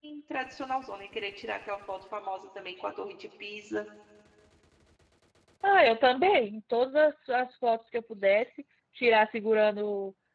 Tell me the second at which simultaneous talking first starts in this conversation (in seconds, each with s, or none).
none